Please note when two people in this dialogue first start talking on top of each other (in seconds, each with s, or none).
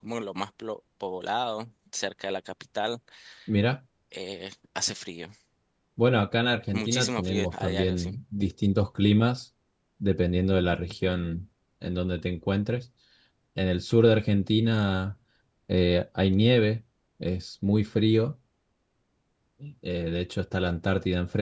6.7 s